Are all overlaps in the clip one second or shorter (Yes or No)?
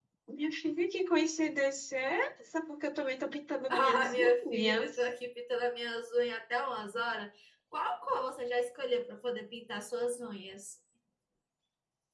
No